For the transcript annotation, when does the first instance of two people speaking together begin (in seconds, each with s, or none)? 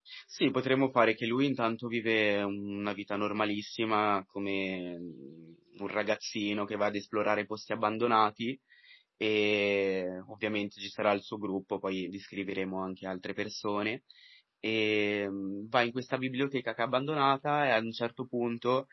none